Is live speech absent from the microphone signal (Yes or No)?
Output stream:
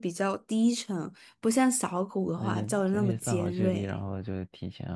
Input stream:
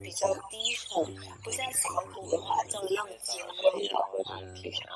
No